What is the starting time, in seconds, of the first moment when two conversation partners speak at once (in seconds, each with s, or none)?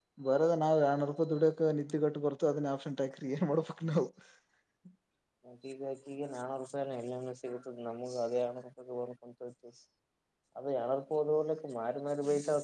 none